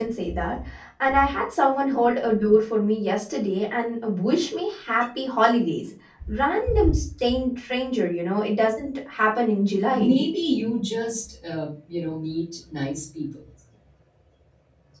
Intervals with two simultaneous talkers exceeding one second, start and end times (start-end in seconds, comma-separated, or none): none